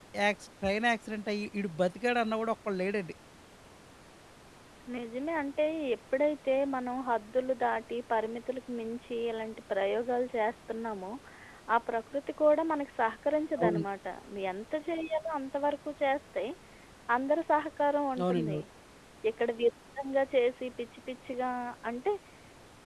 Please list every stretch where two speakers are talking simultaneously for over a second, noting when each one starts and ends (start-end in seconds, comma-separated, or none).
none